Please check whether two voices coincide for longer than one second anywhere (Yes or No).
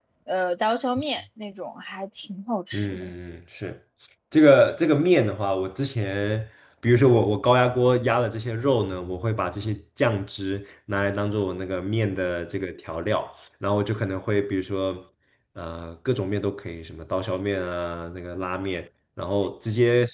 No